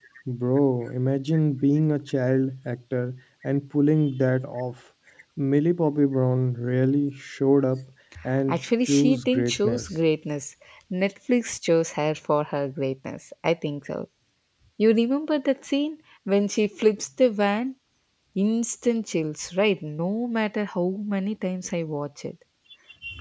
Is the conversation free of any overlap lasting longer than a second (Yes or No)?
No